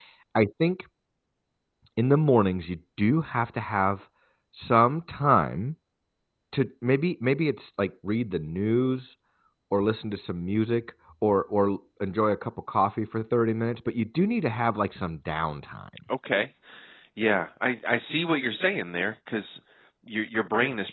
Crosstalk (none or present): none